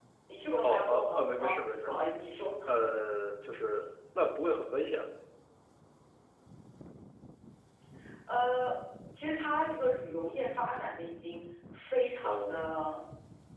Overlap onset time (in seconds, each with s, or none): 0.6 s